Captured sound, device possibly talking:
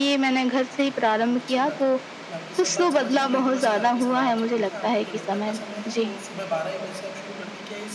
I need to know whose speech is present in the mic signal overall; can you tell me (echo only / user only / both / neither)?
both